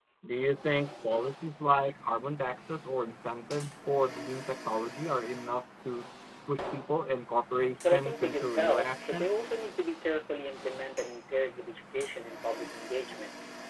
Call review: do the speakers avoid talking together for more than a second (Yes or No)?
No